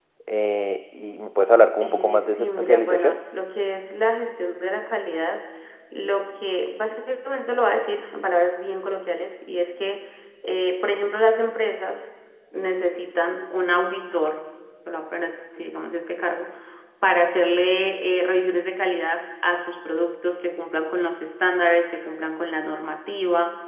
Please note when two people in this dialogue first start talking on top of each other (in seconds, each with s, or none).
1.8 s